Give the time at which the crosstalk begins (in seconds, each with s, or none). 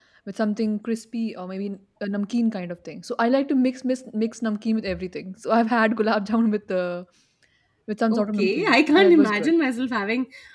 8.1 s